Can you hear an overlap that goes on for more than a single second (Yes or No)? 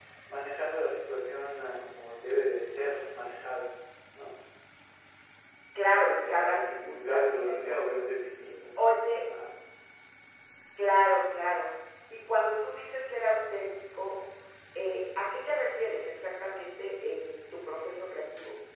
Yes